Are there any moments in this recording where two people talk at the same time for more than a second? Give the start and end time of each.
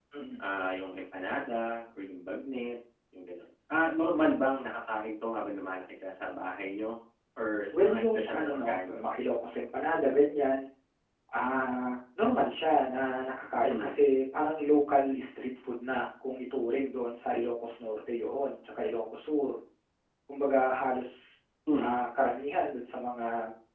7.7-9.1

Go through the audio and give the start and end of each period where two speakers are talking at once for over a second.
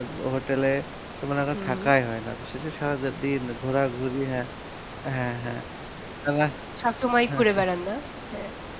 none

